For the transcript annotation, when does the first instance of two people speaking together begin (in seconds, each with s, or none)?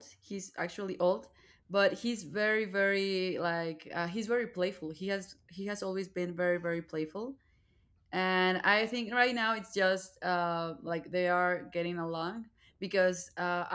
none